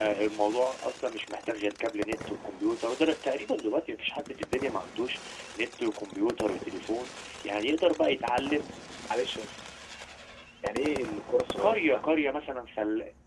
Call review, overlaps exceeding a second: none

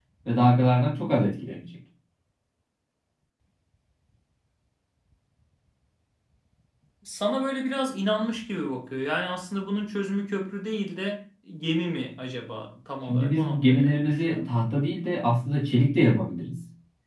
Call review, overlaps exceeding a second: present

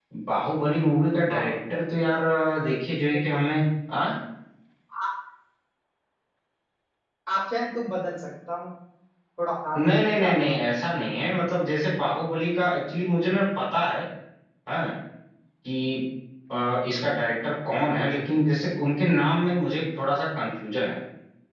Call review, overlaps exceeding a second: present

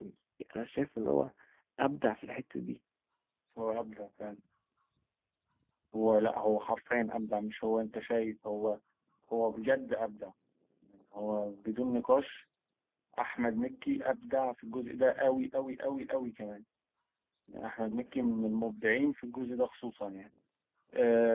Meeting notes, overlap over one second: none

